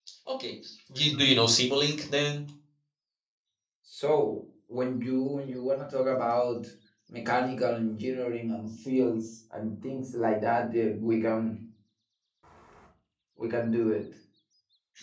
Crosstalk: none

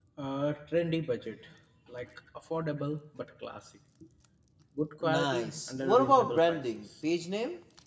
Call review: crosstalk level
present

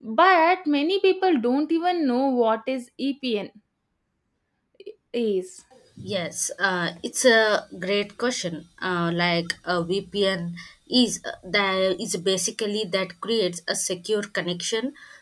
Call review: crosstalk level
none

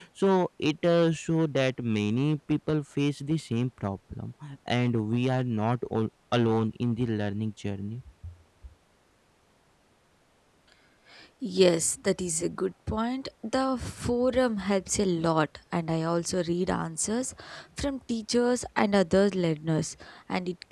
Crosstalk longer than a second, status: none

